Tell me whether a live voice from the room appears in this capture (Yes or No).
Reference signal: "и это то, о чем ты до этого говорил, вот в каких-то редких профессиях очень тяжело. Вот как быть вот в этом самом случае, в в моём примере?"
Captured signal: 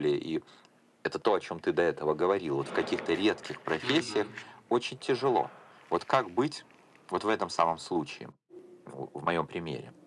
Yes